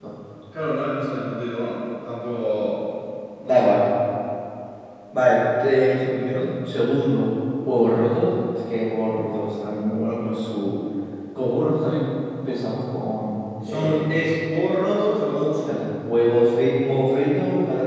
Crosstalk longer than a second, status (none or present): none